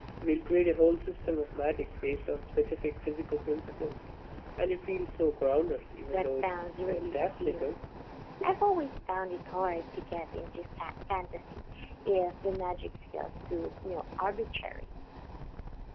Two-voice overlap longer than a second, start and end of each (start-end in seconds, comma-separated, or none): 6.1-7.7